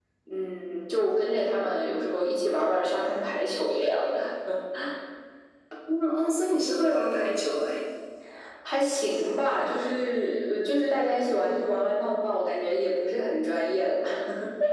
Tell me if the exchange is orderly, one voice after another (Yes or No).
Yes